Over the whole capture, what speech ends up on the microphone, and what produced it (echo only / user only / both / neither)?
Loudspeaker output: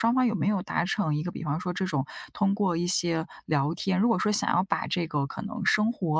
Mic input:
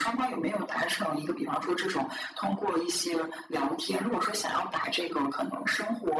echo only